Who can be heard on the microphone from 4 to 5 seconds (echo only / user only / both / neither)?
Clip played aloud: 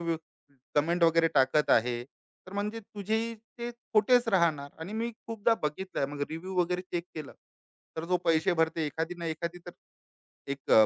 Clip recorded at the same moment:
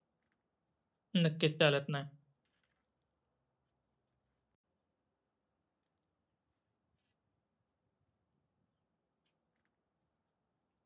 neither